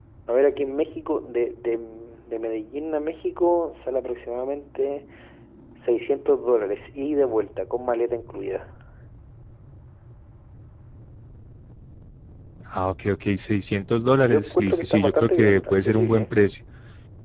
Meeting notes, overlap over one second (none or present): present